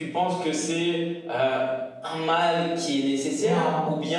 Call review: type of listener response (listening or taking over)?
listening